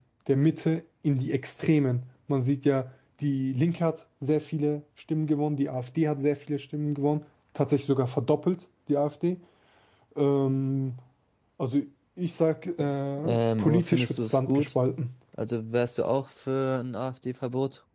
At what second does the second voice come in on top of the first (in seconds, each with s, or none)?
13.2 s